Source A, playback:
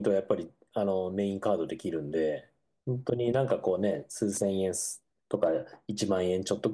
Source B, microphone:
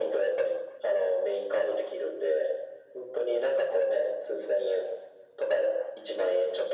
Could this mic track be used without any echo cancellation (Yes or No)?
No